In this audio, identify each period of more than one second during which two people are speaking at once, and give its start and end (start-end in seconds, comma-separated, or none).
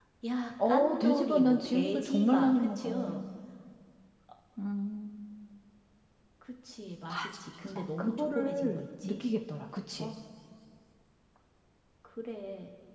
0.7-3.2, 7.8-9.1